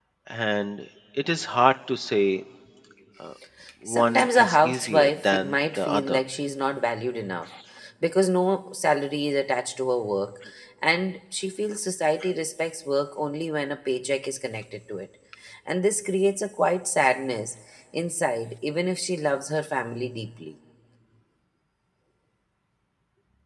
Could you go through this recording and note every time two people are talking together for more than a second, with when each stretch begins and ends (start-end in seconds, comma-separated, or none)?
3.9-6.2